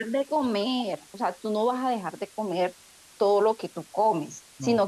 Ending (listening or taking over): listening